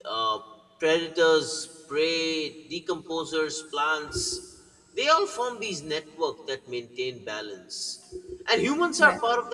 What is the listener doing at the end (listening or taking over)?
listening